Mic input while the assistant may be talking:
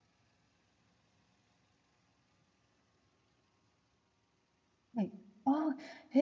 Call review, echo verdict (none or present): none